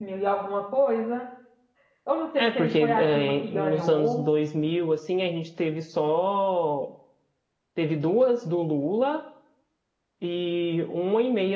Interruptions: present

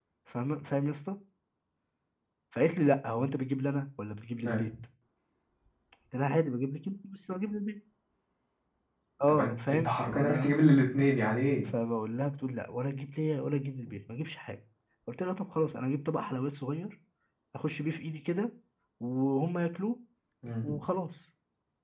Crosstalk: present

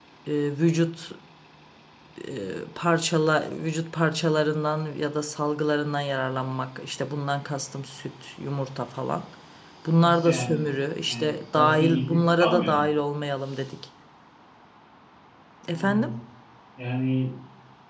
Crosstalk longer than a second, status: present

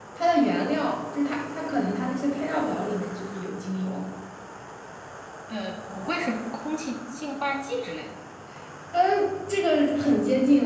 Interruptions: none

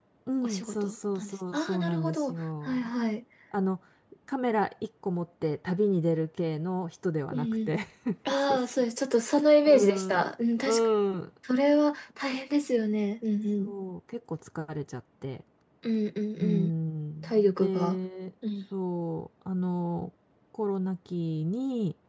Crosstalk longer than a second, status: present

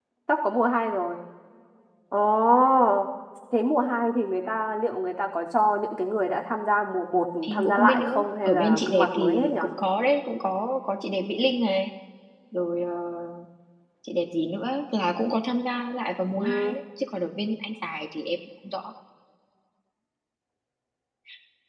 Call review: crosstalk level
present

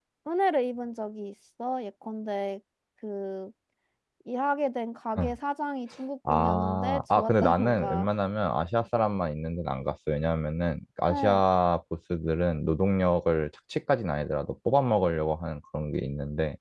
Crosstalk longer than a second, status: present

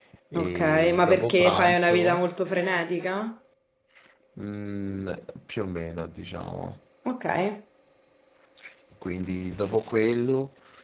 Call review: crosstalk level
present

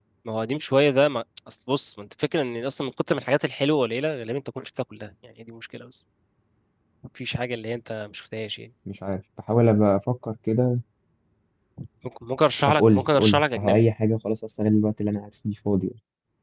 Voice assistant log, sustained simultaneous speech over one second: present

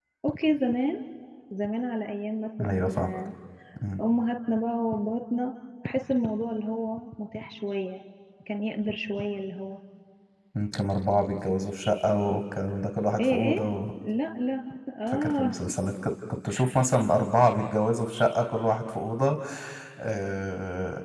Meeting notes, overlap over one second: none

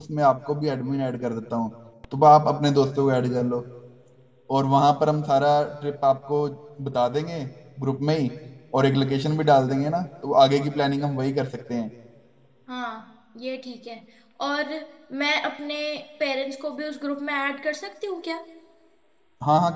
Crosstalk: none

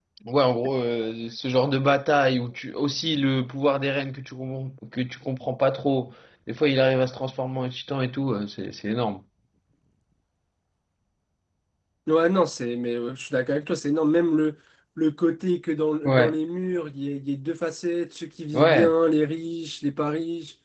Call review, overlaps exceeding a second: none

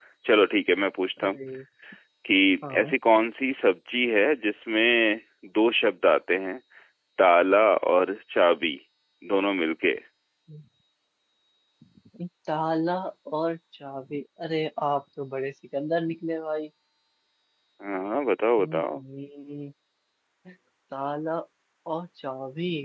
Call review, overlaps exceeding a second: none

